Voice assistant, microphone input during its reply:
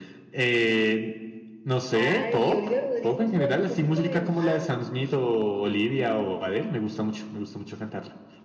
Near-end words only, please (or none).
Ay, Olivia Rodrigo no estuvo hace poquito en... Ah, no.